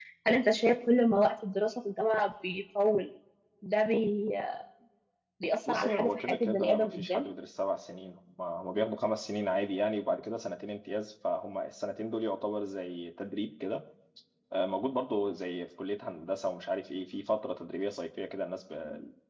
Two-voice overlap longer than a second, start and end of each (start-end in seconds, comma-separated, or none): 5.7-7.3